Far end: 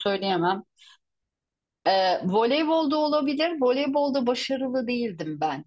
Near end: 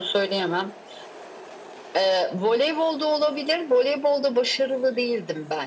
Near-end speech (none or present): none